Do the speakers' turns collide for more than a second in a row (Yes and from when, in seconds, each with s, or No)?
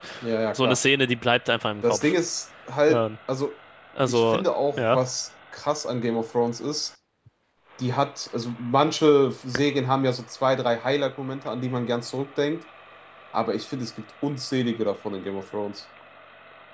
No